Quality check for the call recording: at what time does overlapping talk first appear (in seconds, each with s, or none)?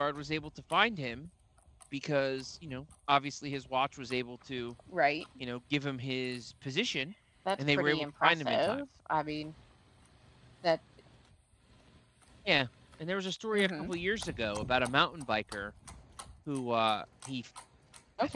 7.6 s